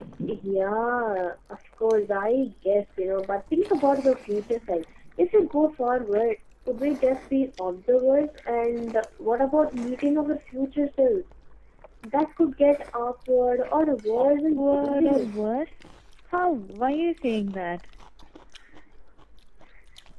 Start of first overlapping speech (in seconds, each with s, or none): 14.2 s